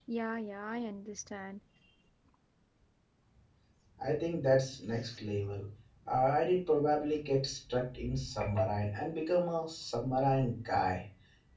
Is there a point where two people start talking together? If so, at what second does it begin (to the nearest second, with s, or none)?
none